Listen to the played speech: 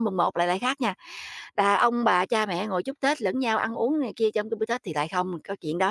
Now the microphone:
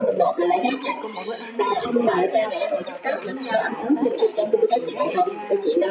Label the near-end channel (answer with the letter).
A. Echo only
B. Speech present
B